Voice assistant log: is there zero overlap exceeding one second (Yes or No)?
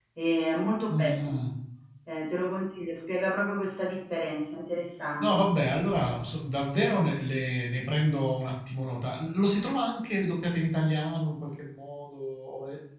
Yes